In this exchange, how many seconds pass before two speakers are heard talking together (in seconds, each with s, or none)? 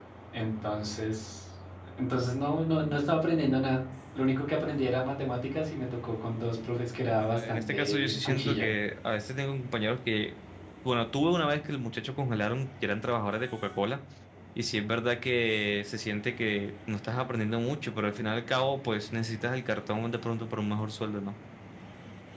7.2 s